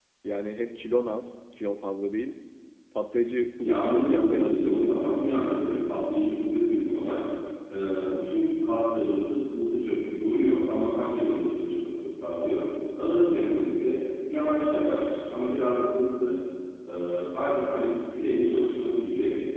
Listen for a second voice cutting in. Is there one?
Yes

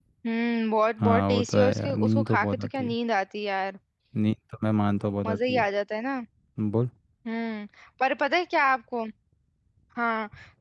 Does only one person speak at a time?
No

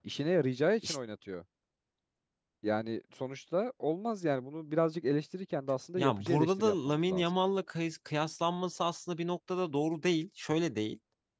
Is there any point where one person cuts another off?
Yes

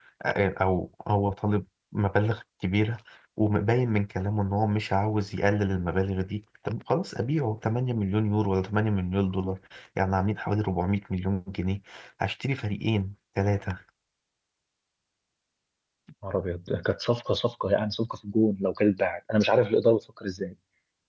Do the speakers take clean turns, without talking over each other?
Yes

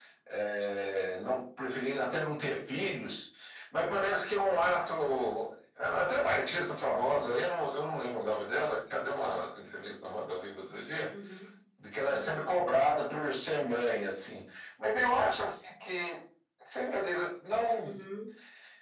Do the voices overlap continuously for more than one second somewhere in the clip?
No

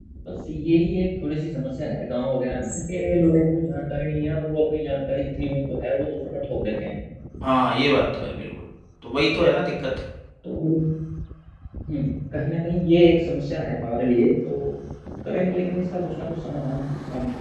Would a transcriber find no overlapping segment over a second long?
Yes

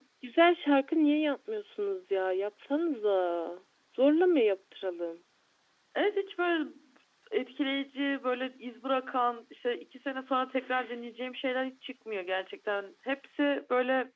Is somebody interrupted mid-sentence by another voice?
No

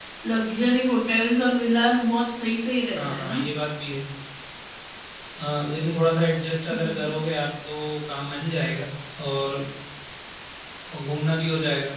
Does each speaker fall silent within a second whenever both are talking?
Yes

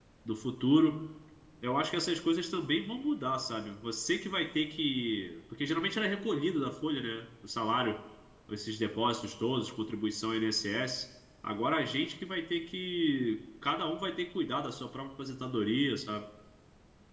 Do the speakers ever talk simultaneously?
No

